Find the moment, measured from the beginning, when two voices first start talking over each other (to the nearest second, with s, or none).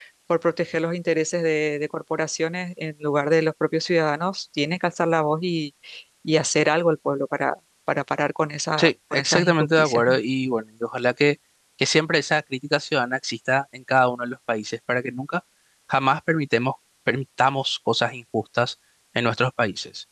9 s